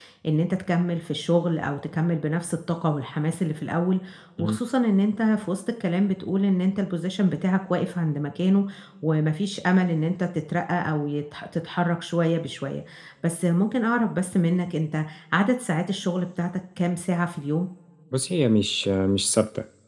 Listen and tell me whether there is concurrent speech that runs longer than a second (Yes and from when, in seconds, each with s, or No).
No